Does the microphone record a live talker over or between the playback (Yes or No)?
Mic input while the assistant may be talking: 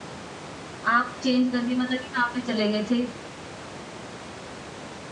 Yes